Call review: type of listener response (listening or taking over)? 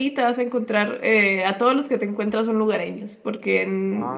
listening